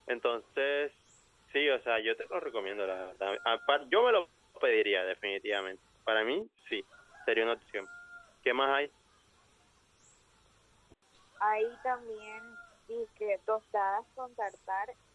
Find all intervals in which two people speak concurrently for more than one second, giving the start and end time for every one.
none

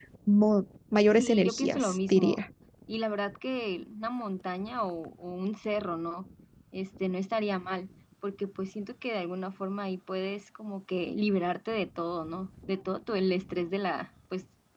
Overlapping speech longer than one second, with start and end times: 1.2-2.4

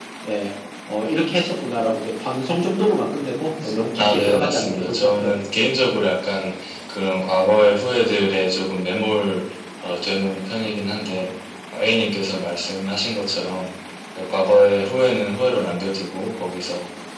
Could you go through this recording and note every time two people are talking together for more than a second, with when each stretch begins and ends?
4.0-5.3

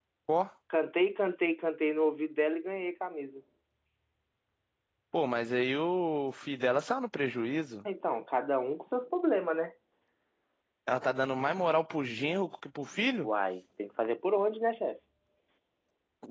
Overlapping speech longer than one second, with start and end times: none

